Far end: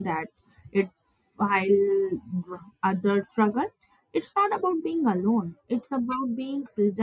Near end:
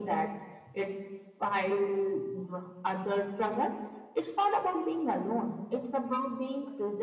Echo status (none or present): present